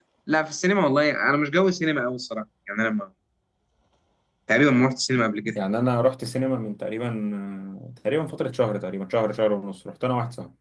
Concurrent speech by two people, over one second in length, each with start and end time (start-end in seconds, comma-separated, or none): none